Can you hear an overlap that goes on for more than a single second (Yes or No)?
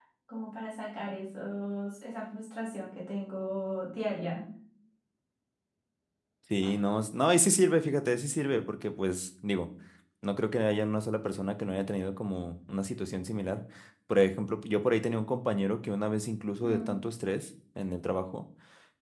No